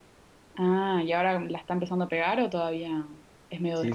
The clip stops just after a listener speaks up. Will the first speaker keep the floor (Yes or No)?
No